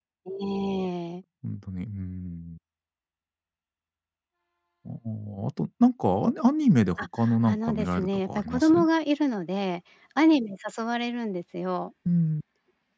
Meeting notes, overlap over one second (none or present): present